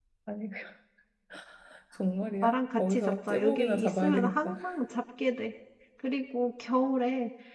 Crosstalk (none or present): present